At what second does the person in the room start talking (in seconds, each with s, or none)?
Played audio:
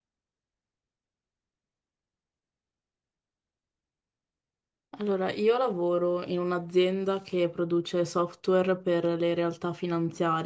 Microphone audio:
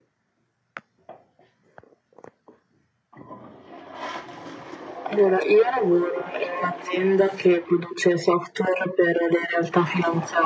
none